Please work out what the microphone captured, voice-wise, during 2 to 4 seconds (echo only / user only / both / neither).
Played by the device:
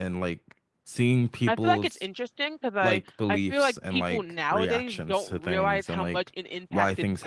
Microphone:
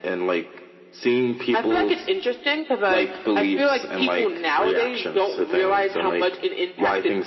echo only